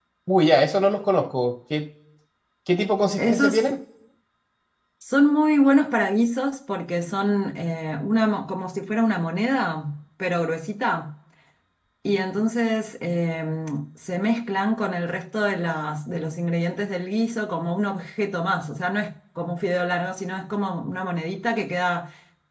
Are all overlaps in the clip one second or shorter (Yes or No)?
Yes